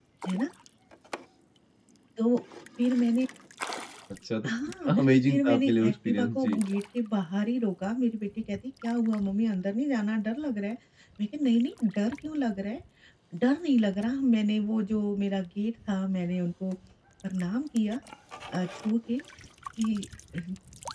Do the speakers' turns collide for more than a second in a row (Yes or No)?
Yes